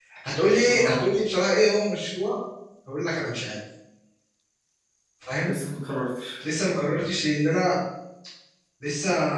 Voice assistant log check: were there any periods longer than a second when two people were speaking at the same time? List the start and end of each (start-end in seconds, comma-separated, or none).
none